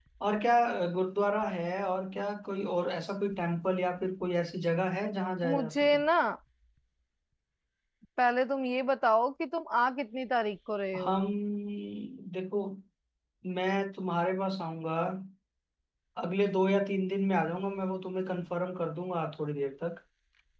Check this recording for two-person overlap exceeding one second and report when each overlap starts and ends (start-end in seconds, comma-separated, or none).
none